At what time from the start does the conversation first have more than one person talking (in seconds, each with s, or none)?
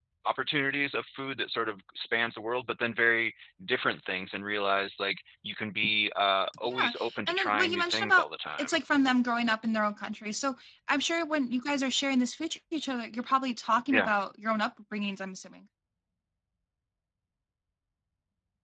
6.6 s